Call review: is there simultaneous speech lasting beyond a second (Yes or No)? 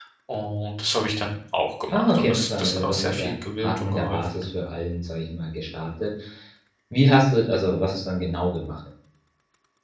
Yes